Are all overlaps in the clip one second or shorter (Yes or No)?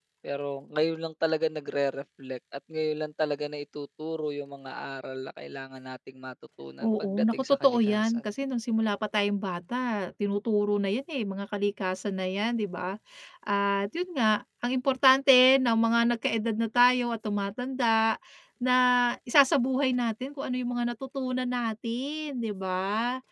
No